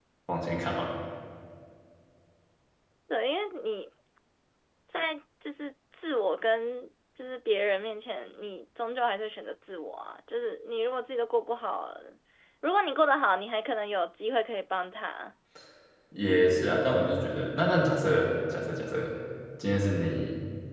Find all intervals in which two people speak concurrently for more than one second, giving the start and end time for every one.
none

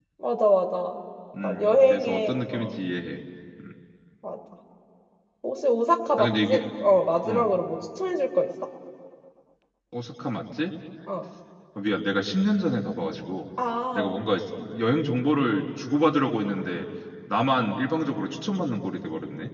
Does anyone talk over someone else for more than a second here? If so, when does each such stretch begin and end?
1.4-2.8

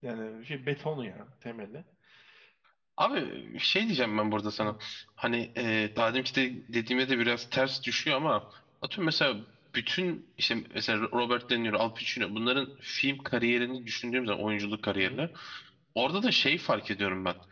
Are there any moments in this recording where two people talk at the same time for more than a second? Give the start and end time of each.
none

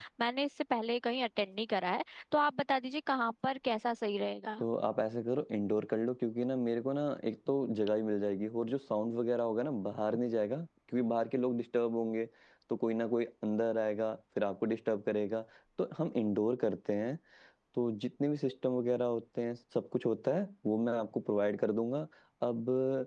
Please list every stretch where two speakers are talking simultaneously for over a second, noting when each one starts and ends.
none

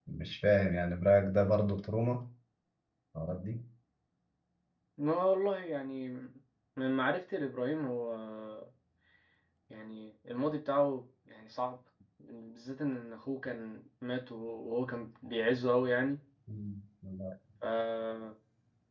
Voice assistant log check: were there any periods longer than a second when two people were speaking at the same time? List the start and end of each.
none

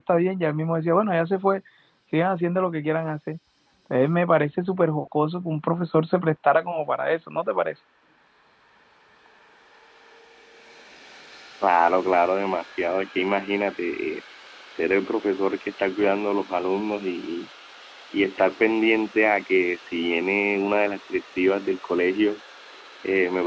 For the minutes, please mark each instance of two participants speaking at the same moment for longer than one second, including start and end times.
none

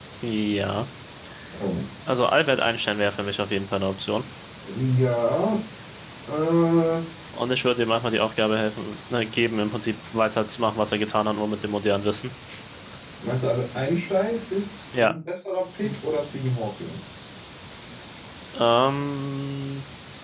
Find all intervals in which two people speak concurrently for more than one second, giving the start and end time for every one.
none

